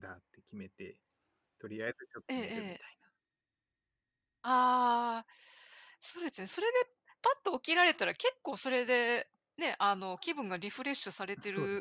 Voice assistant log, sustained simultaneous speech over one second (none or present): none